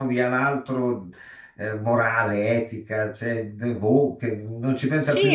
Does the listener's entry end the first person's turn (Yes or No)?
Yes